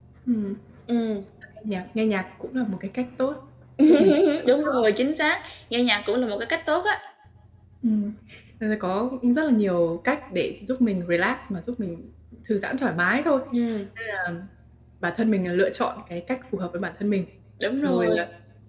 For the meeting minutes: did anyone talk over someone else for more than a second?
No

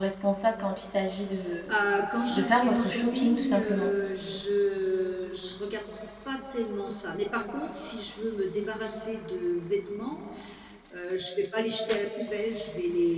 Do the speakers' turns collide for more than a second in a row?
Yes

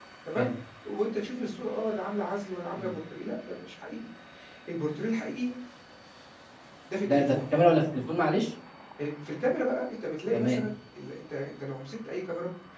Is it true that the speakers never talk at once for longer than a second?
Yes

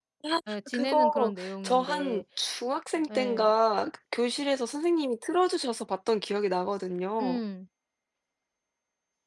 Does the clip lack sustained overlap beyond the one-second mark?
No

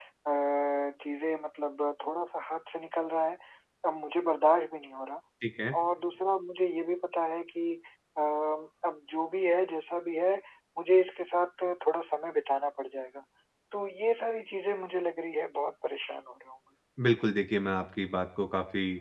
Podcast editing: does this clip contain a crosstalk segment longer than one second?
No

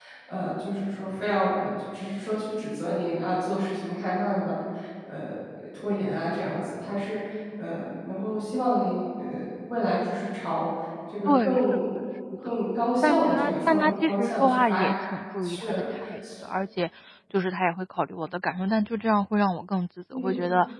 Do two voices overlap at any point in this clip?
Yes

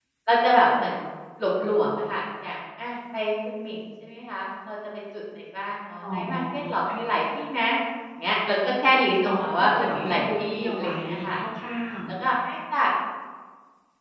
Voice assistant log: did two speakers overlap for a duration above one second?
Yes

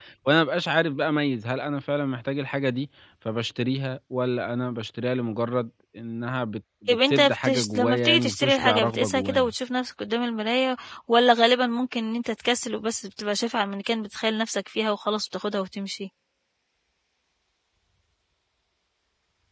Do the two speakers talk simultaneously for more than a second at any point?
Yes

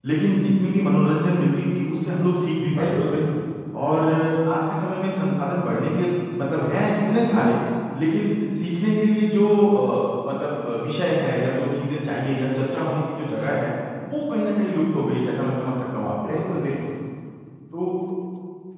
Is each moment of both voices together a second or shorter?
Yes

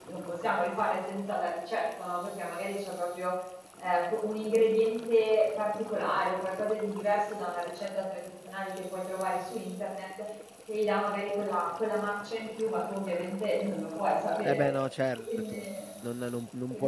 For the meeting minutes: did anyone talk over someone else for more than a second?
No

